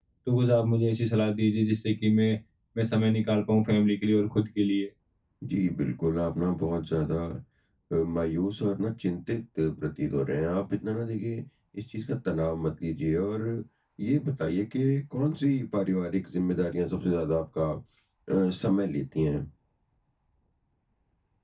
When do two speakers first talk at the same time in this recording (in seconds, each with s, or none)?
none